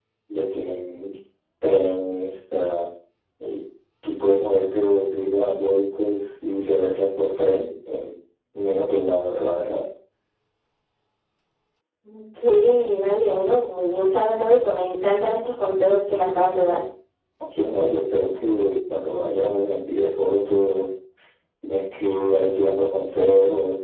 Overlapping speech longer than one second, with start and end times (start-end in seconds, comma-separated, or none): none